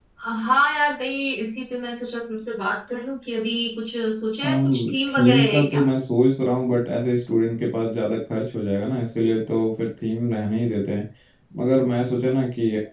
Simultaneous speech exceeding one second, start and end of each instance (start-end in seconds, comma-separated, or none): 4.4-5.8